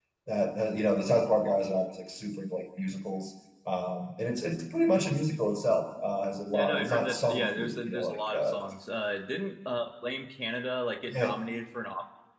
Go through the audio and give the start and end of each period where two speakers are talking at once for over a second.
6.5-8.6

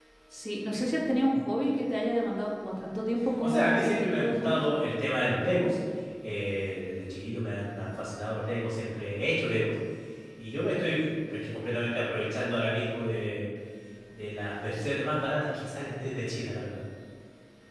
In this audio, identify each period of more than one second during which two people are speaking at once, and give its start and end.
3.4-4.6

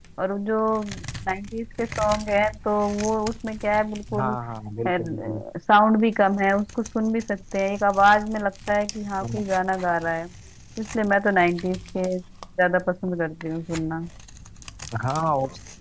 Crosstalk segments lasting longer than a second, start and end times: none

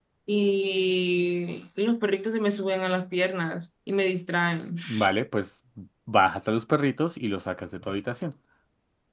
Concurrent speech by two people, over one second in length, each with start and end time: none

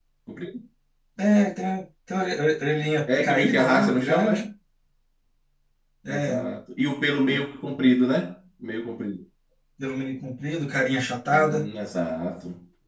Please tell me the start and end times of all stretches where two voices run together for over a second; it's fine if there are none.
3.1-4.4

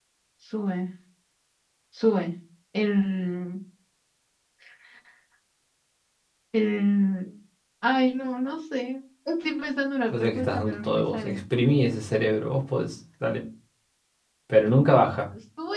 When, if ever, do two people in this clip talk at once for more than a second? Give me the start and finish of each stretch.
10.1-11.4

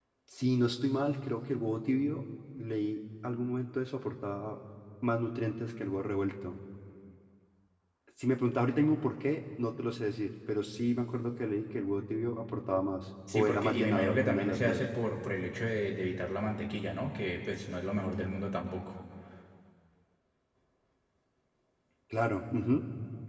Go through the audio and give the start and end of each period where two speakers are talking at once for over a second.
13.3-14.8

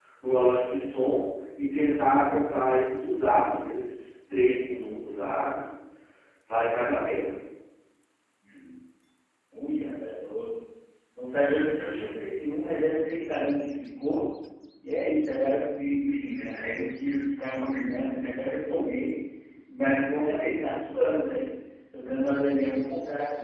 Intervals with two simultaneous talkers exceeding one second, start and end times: none

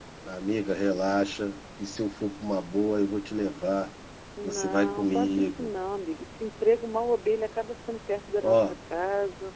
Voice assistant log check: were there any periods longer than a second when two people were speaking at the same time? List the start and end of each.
4.4-5.7

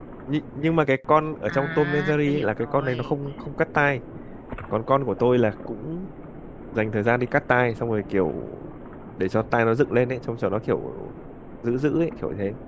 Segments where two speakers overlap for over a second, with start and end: 1.5-3.1

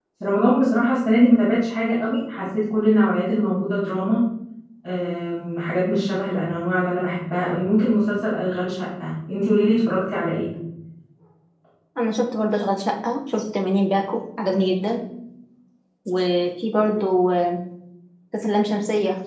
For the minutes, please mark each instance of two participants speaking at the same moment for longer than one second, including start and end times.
none

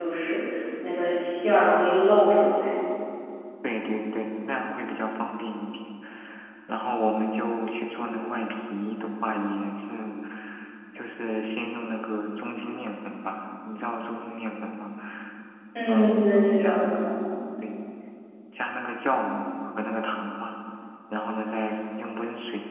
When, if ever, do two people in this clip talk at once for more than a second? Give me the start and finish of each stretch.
15.9-17.2

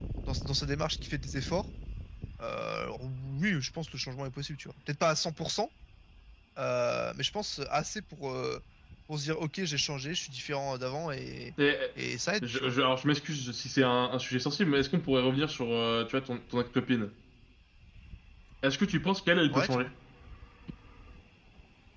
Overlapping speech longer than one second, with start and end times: none

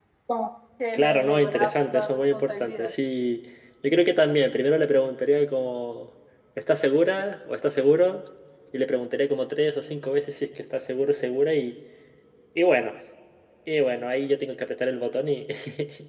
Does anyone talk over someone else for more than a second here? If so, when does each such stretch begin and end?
0.9-2.9

